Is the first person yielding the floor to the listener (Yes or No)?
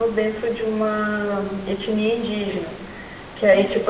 No